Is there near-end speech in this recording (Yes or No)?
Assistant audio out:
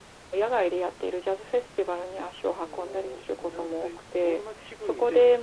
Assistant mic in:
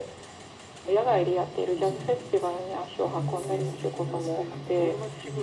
Yes